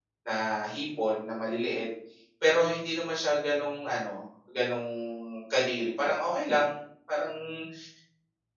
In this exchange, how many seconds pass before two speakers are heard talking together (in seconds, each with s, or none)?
none